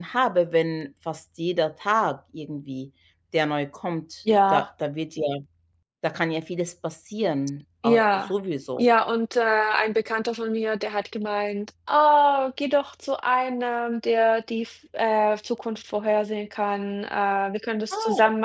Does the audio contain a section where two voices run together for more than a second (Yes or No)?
No